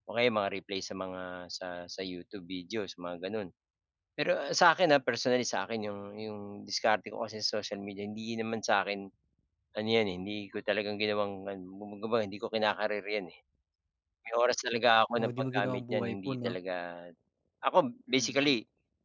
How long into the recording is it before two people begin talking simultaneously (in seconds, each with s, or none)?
15.2 s